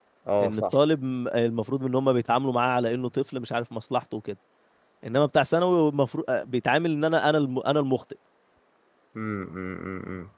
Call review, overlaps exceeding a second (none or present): none